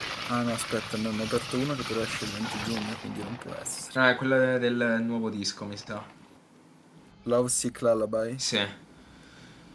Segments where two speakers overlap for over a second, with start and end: none

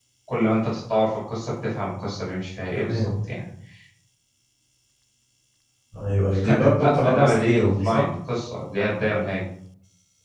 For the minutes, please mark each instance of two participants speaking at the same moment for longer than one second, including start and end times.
6.5-8.0

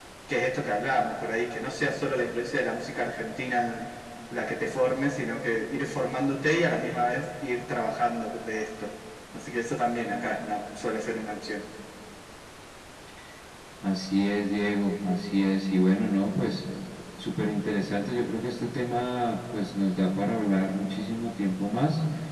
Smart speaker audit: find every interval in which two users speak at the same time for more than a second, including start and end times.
none

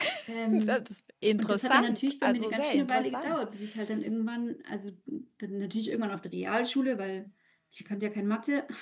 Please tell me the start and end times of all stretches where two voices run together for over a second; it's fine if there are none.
1.4-3.4

